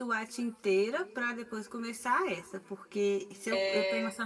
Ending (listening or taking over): listening